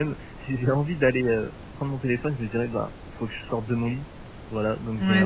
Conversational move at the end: taking over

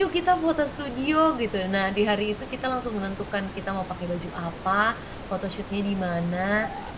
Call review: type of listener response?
listening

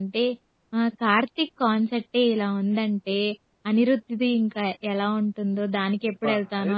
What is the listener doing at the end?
taking over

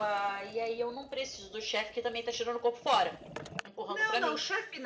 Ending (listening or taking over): taking over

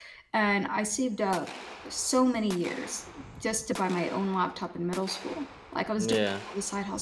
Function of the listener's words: listening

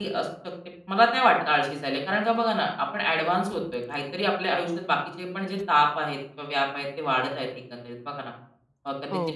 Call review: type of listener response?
listening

